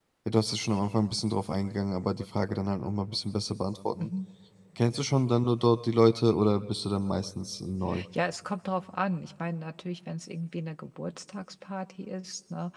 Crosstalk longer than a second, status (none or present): none